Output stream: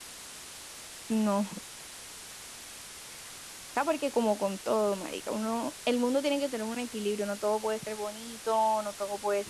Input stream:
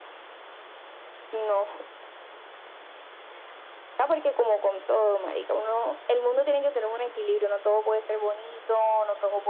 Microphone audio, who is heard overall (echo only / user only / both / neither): echo only